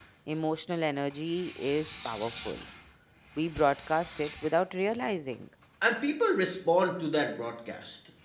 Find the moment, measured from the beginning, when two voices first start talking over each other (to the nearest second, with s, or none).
none